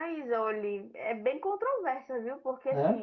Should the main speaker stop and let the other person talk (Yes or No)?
No